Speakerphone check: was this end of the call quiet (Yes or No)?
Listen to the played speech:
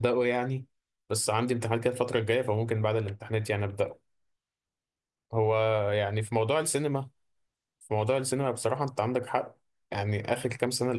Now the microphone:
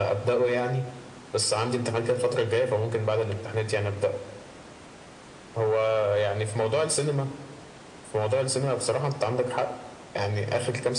Yes